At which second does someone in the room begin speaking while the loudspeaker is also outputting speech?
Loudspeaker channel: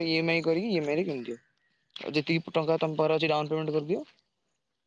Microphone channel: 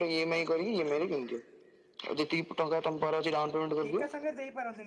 3.9 s

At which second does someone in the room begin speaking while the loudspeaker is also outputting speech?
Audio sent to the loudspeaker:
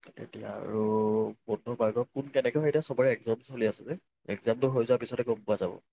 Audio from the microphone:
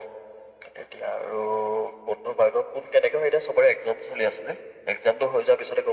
none

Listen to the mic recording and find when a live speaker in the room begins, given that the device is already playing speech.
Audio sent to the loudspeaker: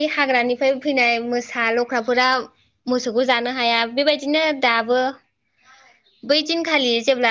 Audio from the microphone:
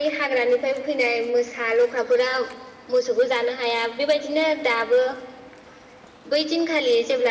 none

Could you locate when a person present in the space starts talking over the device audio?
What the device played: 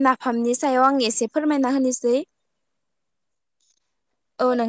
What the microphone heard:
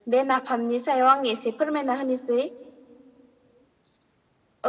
none

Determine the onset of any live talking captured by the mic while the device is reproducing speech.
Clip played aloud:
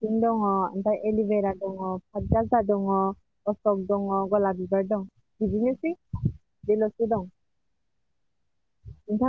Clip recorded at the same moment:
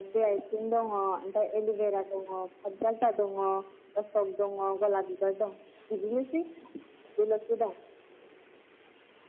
none

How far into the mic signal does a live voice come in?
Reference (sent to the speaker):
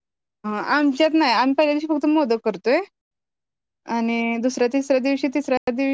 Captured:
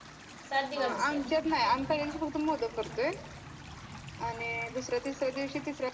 0.5 s

